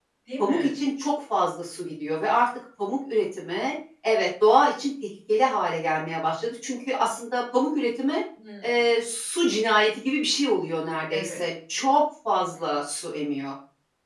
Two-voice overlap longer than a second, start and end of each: none

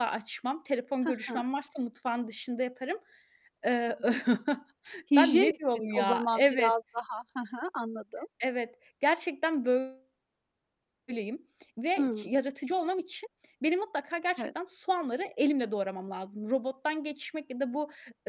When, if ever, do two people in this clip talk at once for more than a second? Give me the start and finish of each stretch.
5.2-6.7

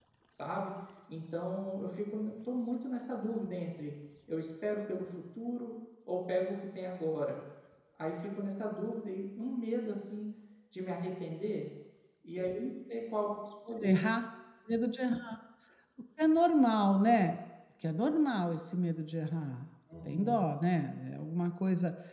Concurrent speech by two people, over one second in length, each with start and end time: none

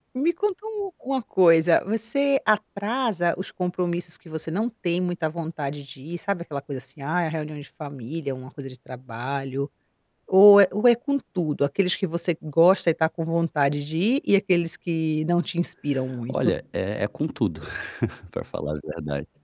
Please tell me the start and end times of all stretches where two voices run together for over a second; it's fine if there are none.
none

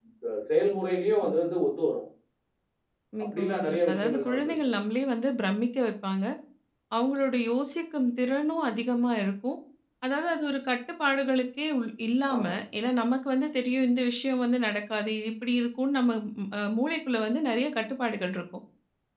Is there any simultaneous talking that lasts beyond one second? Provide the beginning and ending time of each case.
3.3-4.5

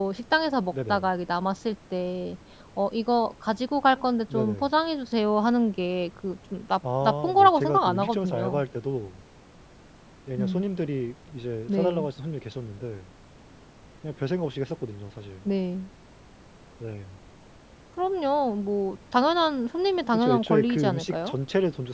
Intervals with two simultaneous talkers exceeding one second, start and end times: 7.0-8.6, 20.1-21.3

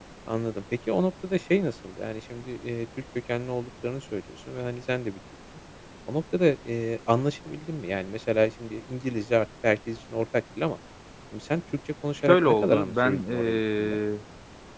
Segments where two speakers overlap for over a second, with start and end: 12.3-14.0

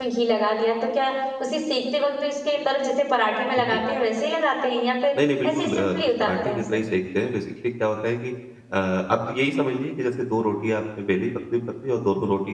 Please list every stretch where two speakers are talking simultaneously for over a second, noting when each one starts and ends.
5.4-6.8

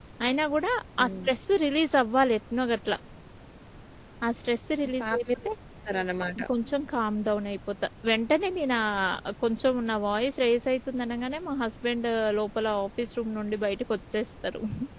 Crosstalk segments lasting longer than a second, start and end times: none

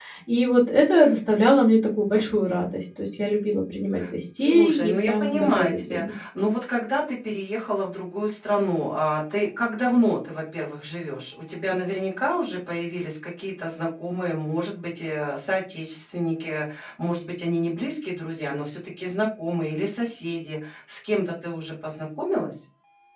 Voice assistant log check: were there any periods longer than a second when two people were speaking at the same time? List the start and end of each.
4.4-6.1

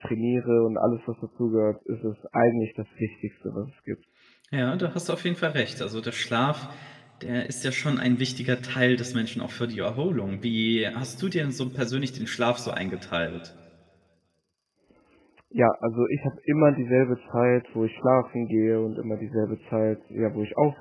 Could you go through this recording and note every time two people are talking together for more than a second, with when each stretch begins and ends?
none

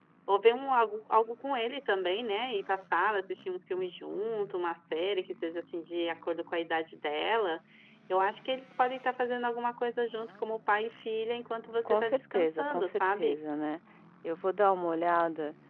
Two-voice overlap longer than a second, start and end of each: 11.8-13.4

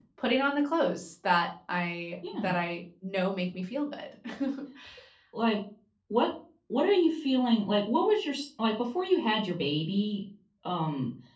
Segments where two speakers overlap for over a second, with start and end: none

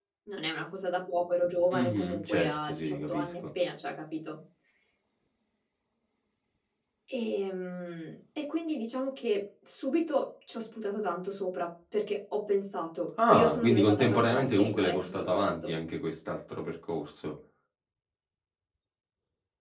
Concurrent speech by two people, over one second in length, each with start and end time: 1.7-3.3, 13.3-15.7

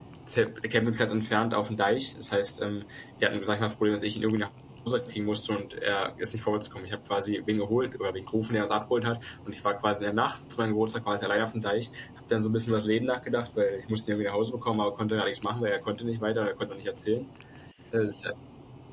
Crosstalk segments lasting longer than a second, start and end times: none

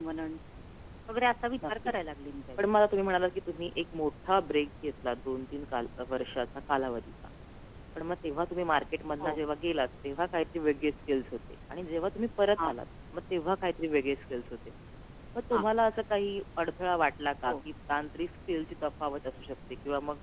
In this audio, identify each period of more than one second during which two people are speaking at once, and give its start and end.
none

